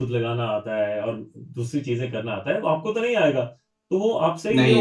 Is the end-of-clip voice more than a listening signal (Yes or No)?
No